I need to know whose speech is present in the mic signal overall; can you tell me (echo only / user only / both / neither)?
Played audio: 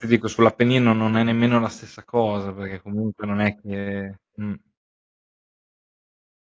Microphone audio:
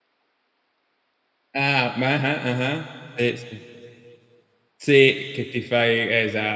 user only